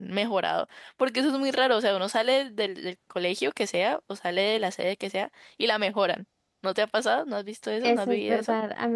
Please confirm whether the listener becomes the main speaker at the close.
Yes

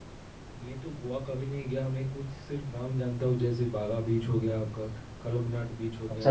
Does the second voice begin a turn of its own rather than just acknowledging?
Yes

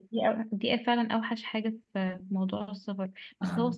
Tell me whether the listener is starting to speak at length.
No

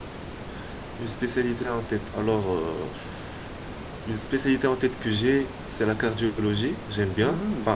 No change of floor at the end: No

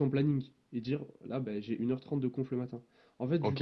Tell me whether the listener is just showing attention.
No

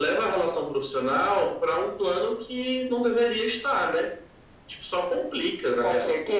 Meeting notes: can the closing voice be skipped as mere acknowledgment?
No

